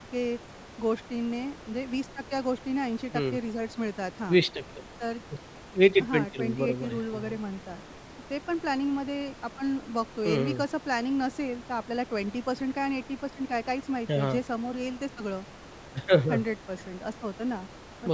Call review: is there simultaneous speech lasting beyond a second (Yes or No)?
Yes